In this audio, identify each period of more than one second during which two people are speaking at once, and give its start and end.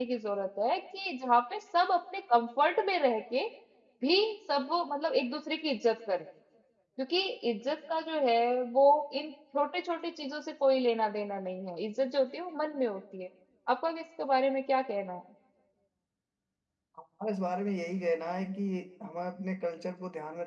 none

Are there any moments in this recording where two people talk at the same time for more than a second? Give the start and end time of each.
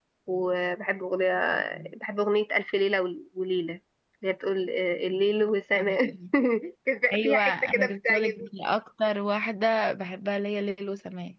7.1-8.5

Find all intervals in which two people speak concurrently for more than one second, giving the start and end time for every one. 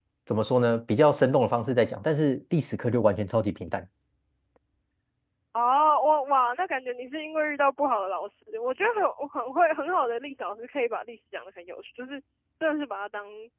none

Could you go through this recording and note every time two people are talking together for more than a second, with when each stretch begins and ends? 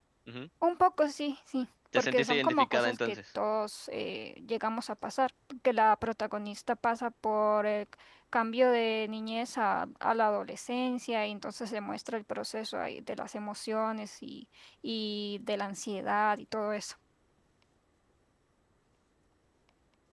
1.9-3.2

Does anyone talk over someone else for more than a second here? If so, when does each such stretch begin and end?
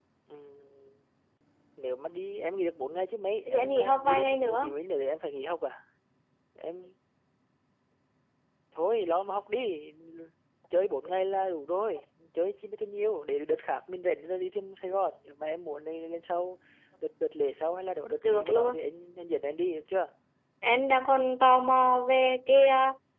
3.5-4.7

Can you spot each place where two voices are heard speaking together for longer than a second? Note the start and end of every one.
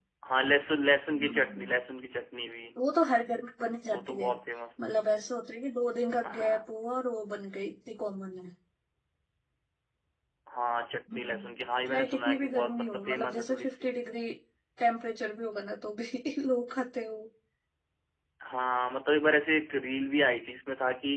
11.9-13.9

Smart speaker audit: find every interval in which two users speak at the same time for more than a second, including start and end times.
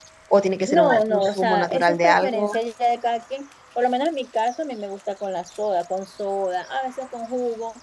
0.7-2.5

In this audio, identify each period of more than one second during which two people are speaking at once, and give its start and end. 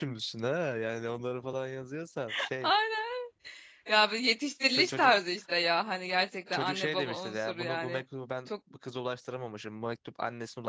6.5-8.0

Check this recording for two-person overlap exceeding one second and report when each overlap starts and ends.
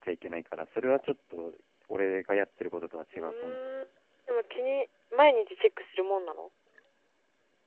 none

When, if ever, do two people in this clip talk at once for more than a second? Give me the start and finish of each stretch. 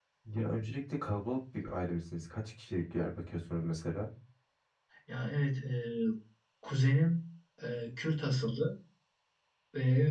none

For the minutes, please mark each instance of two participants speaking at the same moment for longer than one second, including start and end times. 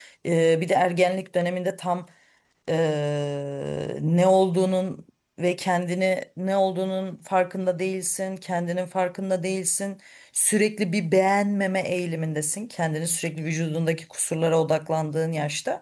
none

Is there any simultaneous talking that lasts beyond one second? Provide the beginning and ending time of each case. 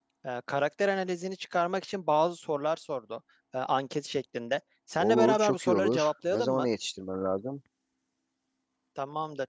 5.0-6.7

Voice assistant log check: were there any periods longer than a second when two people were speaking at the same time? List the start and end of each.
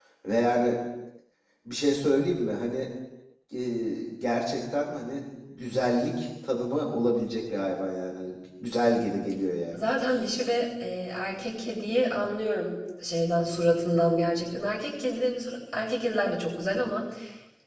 none

